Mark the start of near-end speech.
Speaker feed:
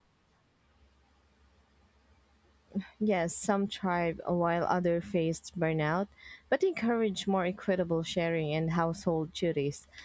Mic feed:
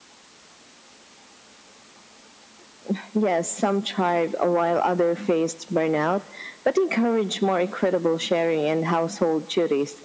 none

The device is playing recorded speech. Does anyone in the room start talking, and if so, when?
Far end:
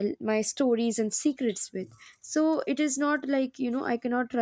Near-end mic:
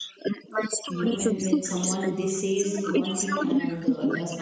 0.9 s

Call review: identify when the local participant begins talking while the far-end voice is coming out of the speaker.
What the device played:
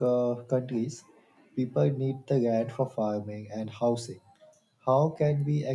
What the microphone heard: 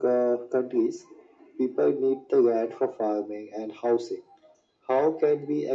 none

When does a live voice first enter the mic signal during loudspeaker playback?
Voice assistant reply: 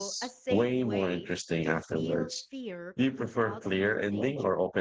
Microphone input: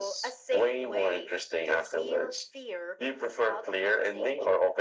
none

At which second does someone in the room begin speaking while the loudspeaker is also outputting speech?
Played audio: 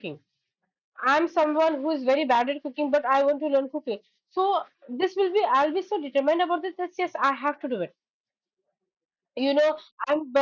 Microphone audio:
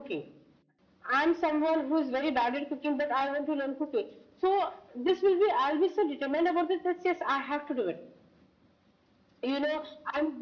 none

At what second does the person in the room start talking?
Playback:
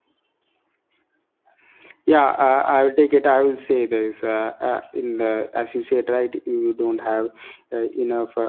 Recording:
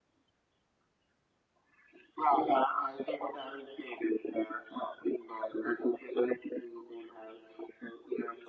none

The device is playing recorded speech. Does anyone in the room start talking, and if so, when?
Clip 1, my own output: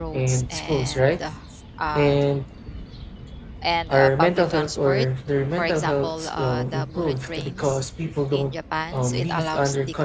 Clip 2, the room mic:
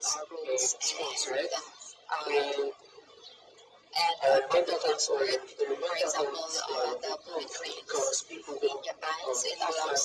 none

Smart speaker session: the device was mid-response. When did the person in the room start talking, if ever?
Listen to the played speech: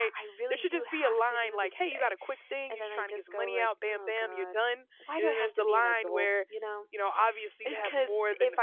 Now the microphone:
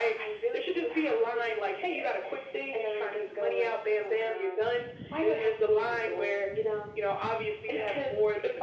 none

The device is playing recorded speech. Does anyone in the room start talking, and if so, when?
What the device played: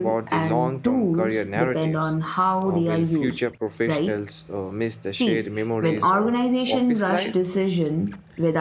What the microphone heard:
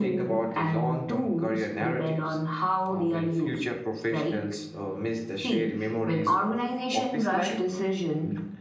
none

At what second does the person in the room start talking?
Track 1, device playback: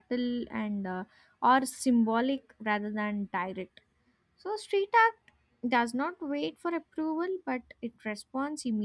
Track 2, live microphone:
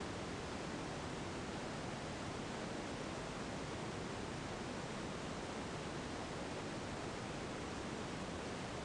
none

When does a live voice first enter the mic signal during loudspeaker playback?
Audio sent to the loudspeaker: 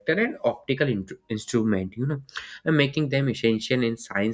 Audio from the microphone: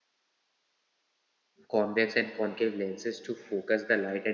1.7 s

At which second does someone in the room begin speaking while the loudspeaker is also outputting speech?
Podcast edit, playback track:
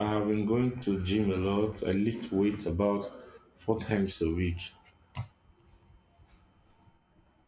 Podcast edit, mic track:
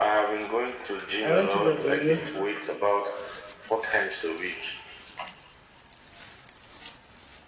1.2 s

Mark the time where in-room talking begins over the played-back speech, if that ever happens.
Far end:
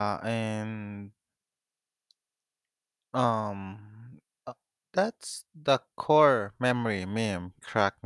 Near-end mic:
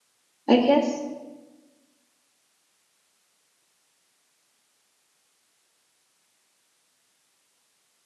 0.5 s

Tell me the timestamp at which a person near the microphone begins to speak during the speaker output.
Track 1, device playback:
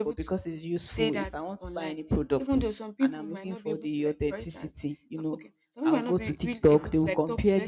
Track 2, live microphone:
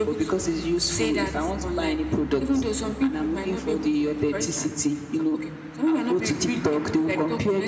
none

